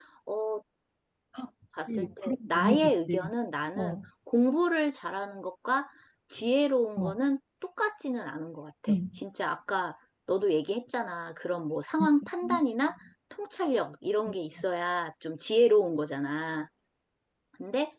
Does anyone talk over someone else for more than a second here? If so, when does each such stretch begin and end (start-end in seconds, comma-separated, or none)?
2.0-3.3